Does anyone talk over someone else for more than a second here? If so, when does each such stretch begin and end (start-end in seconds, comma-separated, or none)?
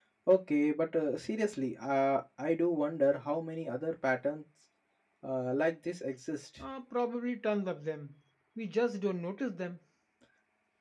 none